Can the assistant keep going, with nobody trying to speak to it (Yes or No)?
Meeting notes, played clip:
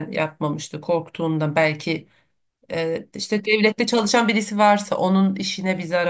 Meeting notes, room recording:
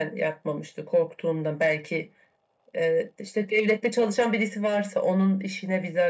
Yes